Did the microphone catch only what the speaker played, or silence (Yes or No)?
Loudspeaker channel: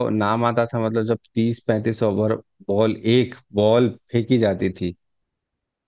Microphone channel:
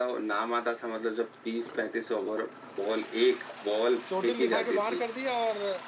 No